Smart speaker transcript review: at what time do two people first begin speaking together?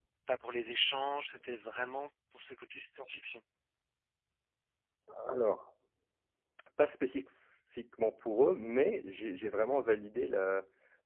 none

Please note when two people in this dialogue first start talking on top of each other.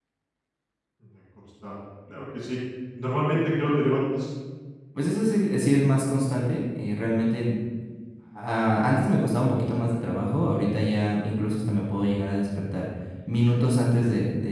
none

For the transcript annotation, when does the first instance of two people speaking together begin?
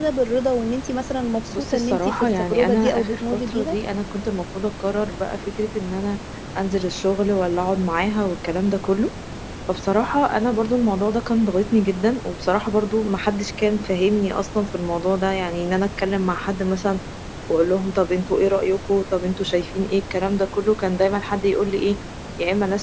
1.5 s

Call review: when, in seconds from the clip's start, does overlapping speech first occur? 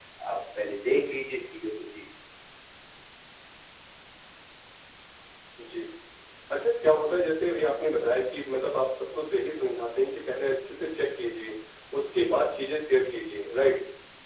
none

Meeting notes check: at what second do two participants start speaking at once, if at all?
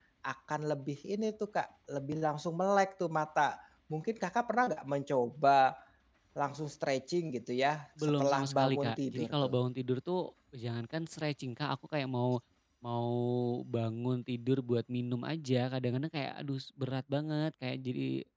8.0 s

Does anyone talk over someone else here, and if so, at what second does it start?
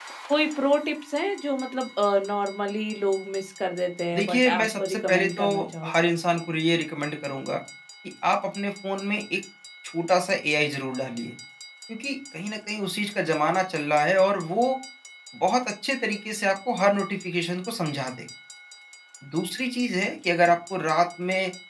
4.1 s

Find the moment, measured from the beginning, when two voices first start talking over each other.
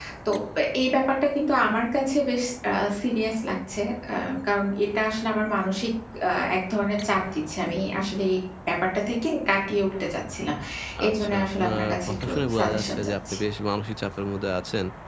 11.1 s

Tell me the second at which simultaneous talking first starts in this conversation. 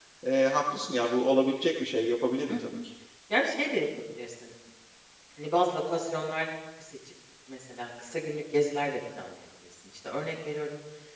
none

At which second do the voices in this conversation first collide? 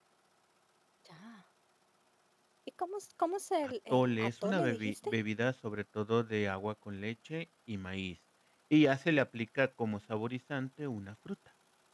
3.6 s

